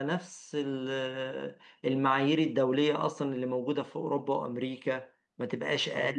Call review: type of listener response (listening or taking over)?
taking over